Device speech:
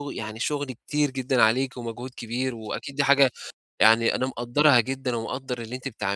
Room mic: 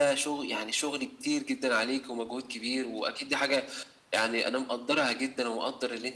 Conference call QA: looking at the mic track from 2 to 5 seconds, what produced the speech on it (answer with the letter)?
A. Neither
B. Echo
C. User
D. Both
B